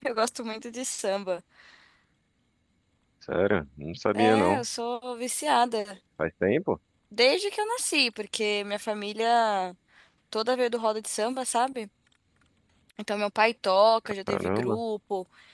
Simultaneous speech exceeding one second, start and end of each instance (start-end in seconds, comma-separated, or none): none